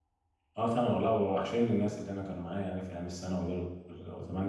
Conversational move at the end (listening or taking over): listening